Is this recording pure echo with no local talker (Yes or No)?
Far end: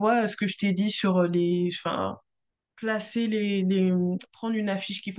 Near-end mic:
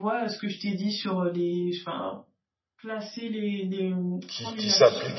No